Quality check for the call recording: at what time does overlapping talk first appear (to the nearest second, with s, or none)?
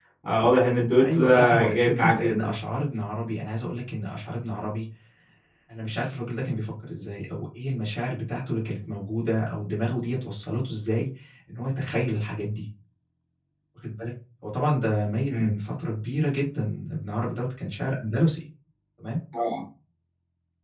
1 s